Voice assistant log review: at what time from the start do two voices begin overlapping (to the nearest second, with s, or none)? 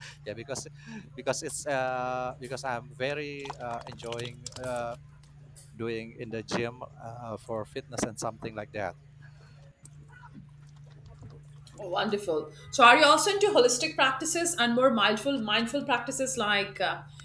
none